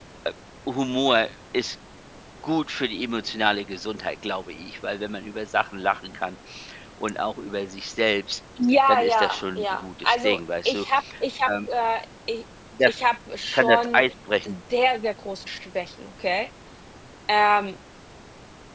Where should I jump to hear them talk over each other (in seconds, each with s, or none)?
8.9 s